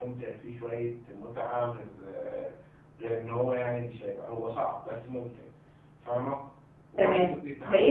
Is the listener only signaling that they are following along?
No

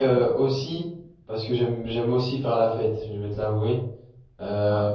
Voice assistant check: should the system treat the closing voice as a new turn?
No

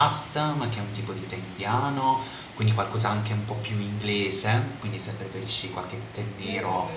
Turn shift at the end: No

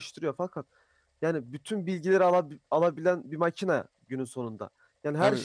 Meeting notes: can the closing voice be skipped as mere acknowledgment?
Yes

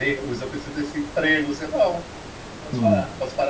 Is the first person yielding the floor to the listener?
No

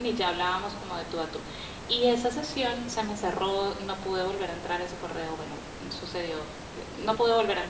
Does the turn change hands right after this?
No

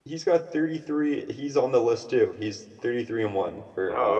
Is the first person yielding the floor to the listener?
Yes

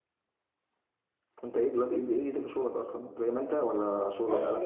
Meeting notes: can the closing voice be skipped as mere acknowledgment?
No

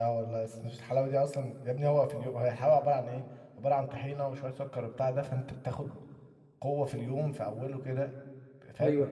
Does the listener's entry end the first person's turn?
Yes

